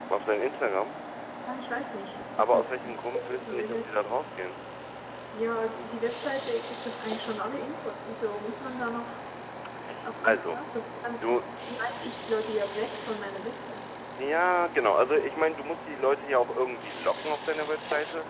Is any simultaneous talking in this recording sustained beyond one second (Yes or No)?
Yes